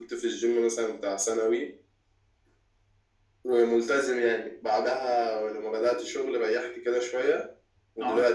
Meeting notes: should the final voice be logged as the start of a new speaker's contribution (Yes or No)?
No